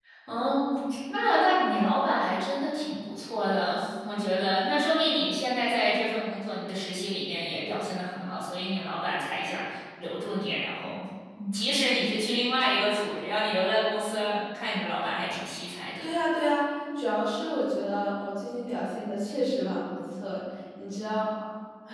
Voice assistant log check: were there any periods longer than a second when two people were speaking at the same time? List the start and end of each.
none

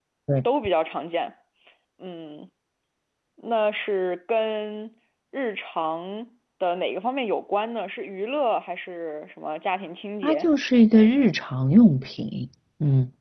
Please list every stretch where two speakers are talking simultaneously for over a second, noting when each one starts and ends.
none

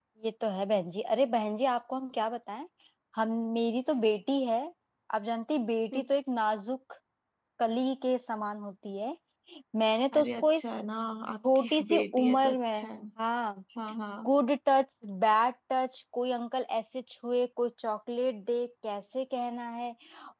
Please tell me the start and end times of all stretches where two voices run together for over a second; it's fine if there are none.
11.4-12.9

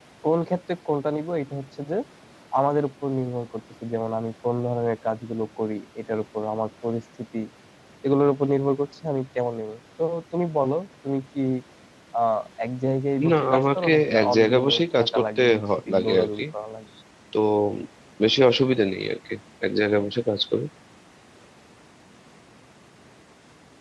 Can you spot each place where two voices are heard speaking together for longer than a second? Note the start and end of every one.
13.3-16.4

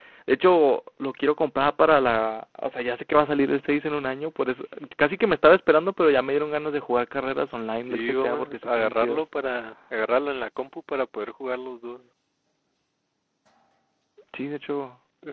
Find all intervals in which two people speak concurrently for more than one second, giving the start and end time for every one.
7.8-9.2

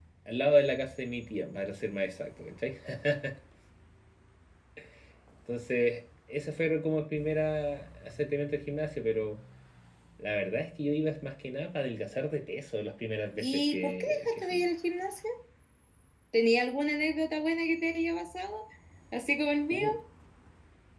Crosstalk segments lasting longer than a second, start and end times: 13.4-14.6

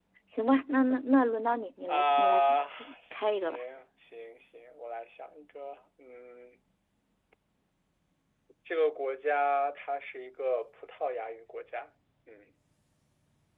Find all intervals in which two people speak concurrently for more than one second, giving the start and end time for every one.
1.9-3.6

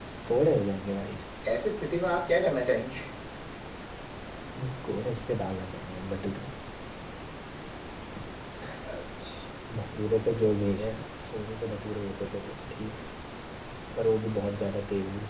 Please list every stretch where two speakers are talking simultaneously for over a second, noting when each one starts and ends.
none

